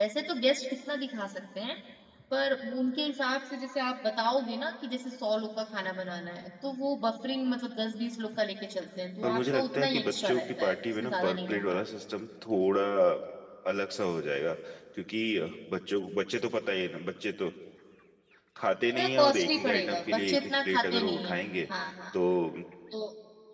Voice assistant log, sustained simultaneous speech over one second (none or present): present